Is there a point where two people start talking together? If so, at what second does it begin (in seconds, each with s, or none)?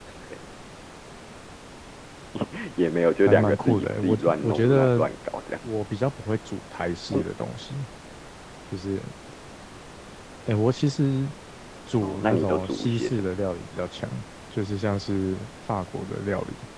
3.3 s